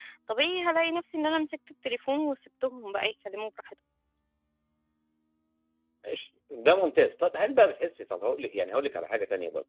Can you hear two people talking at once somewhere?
No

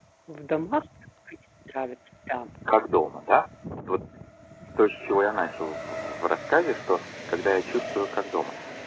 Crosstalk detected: No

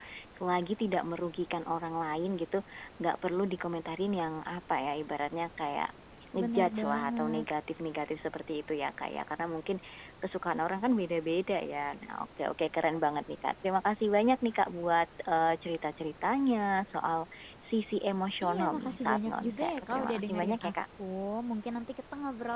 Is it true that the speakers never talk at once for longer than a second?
No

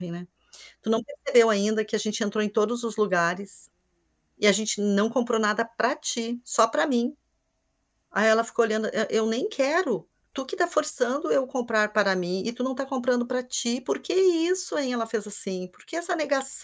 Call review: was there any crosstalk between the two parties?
No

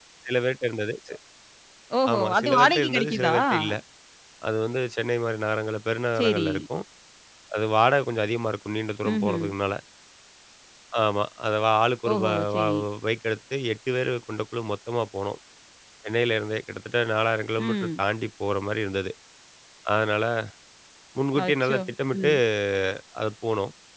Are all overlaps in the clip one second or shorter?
No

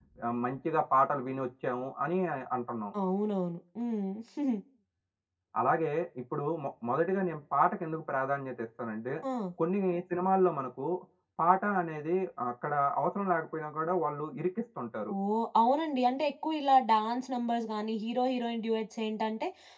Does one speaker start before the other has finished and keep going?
No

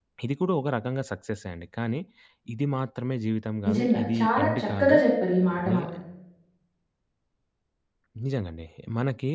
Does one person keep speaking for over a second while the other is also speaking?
Yes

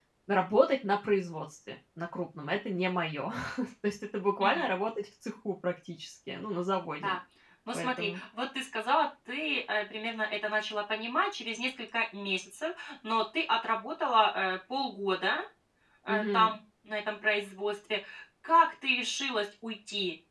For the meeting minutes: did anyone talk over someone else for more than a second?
No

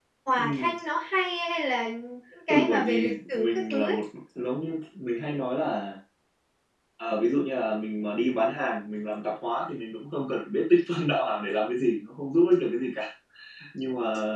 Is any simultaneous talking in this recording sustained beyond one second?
Yes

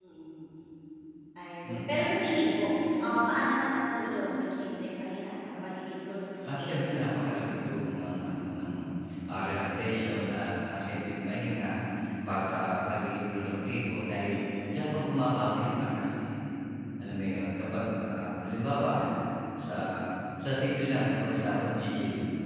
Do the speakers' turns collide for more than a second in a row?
No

